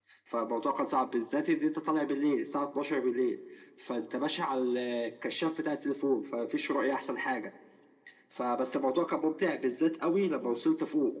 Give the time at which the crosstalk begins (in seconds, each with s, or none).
none